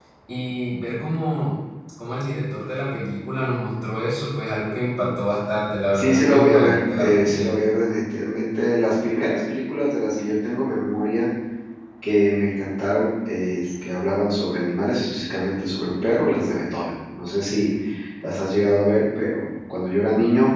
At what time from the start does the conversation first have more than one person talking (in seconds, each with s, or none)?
5.9 s